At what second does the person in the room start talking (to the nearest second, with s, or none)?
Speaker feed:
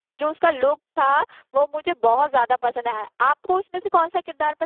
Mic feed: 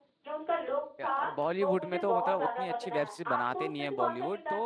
1 s